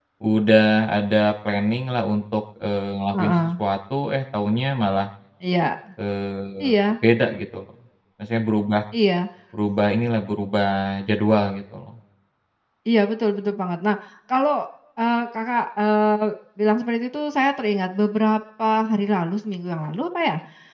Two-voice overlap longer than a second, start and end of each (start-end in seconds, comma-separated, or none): none